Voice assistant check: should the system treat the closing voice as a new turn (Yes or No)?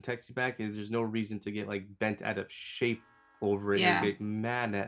No